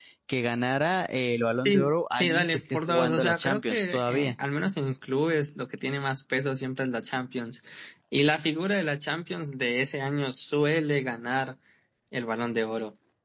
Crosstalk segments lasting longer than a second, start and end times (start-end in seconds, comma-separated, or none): 1.6-4.3